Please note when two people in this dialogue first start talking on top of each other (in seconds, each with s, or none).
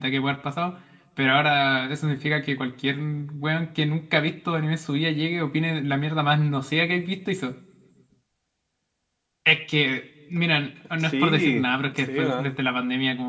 11.0 s